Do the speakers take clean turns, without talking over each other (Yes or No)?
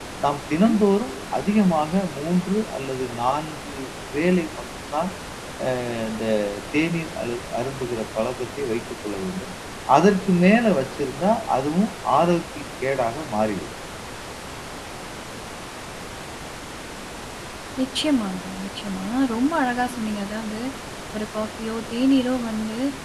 Yes